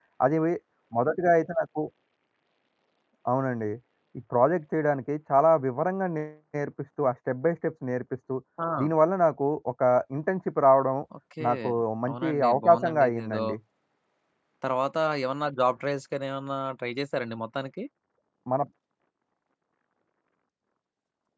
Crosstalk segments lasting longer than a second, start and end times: 12.1-13.4

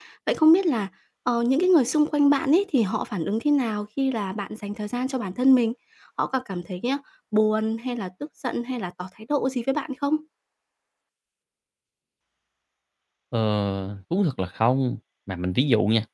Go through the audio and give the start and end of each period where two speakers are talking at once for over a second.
none

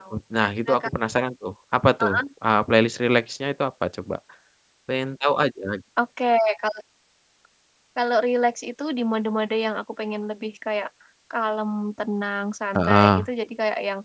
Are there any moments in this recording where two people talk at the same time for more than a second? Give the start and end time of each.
none

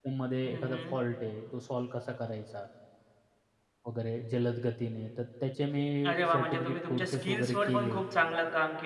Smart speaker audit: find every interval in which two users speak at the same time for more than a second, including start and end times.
6.3-8.0

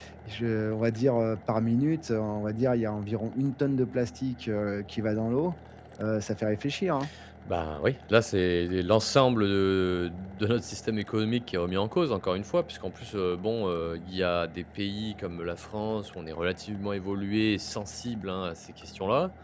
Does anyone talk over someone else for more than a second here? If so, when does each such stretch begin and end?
none

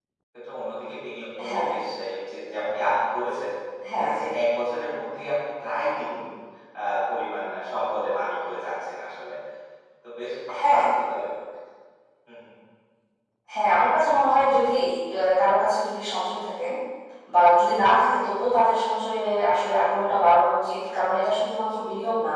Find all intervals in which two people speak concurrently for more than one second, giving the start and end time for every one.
none

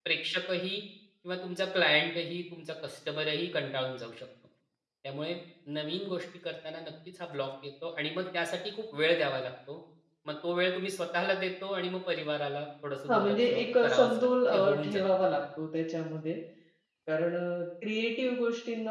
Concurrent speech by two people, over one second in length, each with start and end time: 13.1-15.4

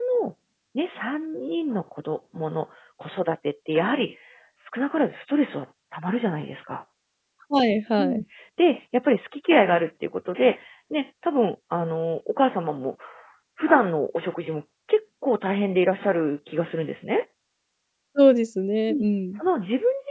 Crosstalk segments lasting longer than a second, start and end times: none

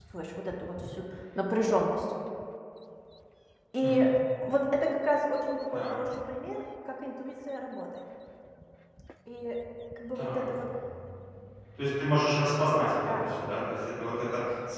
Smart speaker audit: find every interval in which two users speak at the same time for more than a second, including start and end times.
none

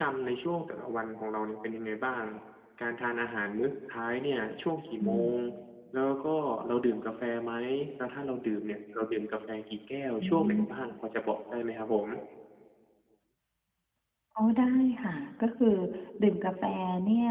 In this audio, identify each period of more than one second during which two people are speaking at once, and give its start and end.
none

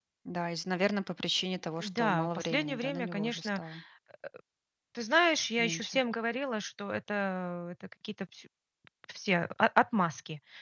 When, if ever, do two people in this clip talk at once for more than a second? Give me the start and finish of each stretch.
1.8-3.6

